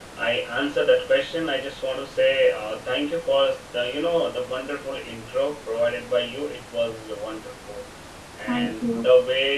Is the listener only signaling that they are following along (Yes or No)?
Yes